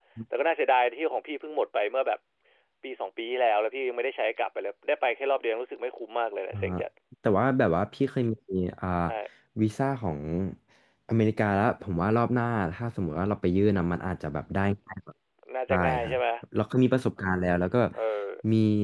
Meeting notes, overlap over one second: none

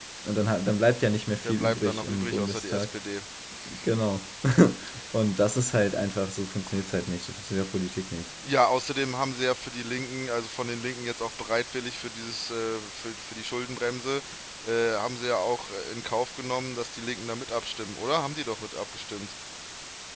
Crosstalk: present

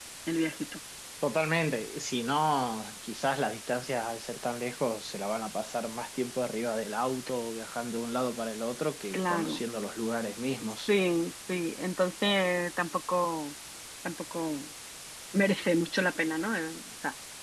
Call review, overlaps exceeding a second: none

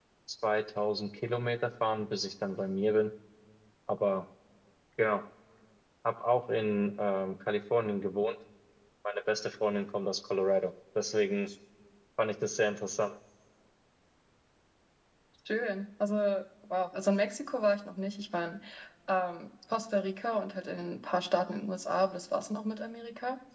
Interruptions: none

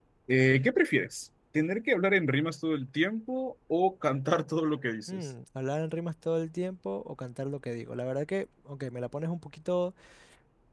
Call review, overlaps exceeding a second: none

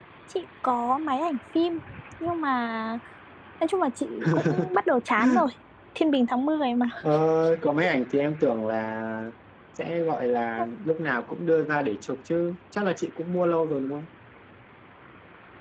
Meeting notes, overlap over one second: none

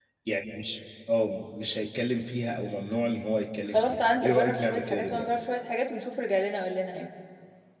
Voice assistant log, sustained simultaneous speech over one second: present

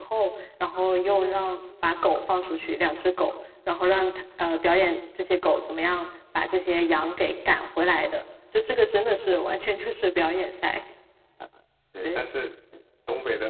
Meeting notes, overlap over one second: none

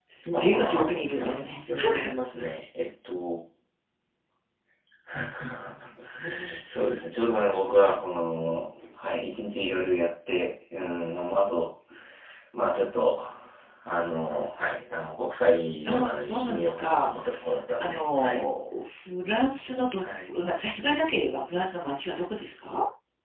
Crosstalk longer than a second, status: present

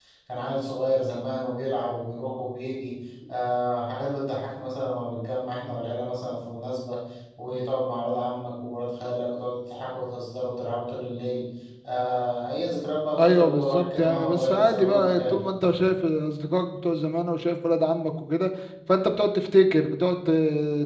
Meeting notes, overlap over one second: present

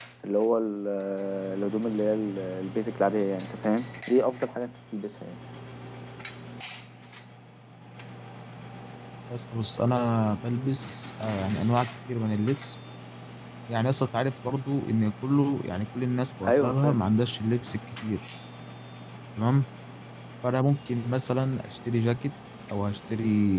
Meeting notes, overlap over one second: none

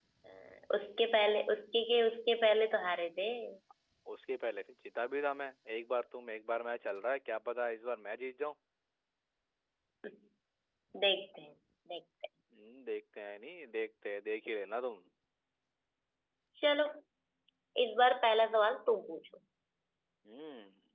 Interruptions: none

